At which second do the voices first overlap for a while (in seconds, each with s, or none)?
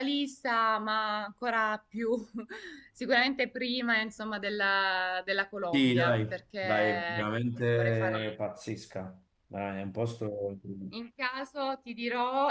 5.7 s